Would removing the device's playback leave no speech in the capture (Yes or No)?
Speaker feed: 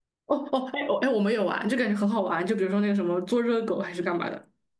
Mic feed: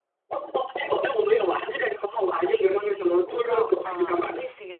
No